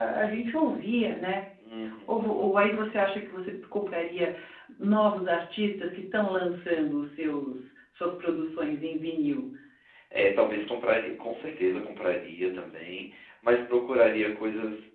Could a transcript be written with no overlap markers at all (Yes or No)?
Yes